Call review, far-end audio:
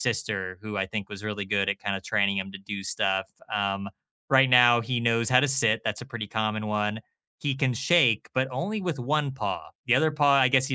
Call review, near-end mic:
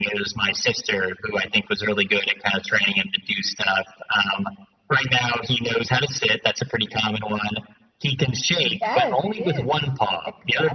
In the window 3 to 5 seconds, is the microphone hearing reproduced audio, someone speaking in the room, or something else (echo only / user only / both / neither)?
echo only